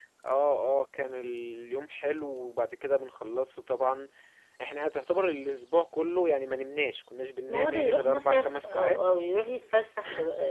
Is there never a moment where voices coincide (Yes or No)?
No